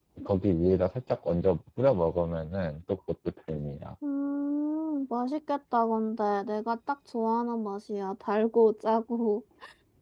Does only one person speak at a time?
Yes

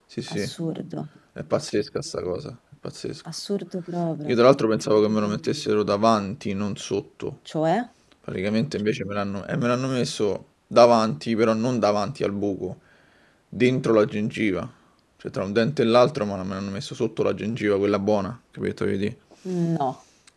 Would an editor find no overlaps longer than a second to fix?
Yes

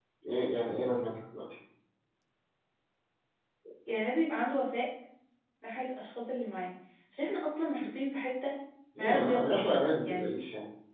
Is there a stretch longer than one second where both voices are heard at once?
Yes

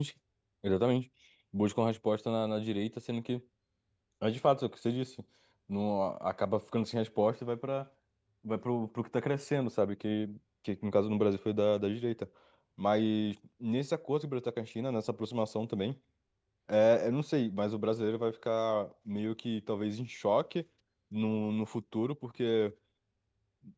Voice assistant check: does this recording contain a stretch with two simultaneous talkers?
No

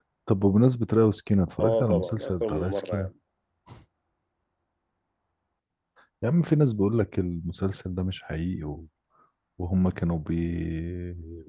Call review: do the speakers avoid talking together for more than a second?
No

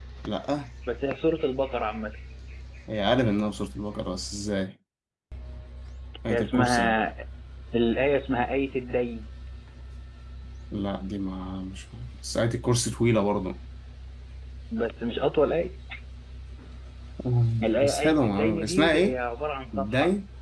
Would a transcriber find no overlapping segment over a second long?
No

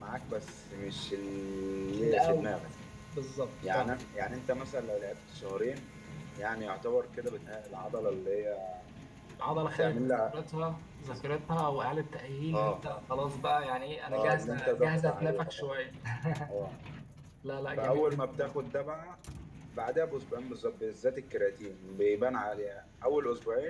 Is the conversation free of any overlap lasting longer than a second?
No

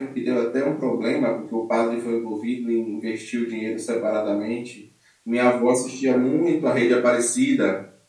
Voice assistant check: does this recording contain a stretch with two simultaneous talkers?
No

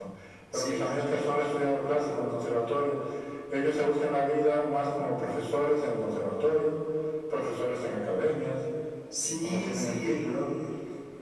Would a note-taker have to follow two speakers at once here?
Yes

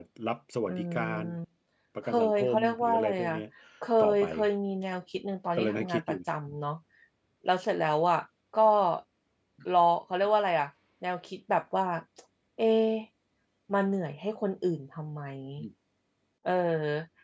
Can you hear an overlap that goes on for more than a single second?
Yes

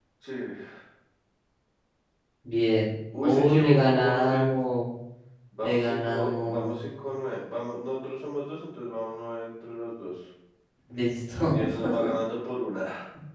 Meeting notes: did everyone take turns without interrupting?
No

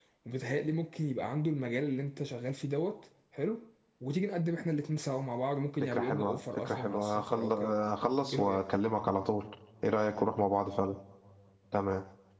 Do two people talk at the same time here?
Yes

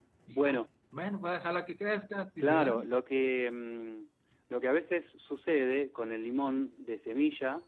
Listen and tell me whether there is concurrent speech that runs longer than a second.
No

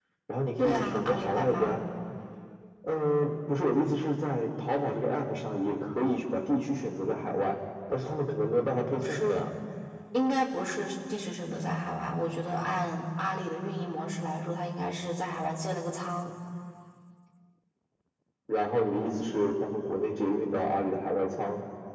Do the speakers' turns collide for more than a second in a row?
Yes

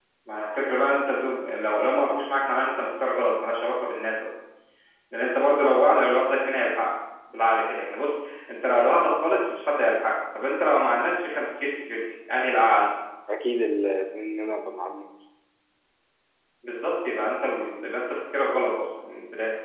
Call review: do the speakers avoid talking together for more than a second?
Yes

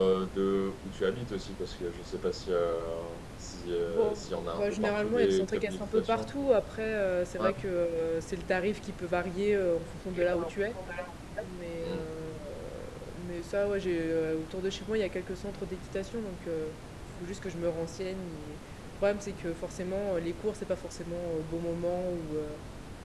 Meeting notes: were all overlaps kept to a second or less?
No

